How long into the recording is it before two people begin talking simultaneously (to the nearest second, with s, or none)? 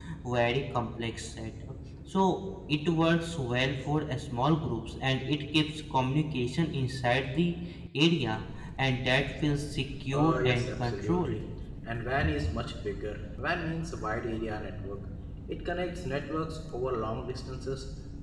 10 s